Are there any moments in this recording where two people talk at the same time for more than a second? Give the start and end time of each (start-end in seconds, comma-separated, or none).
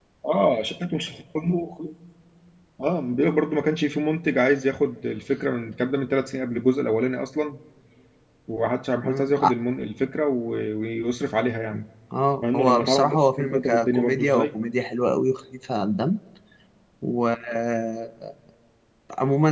12.4-14.6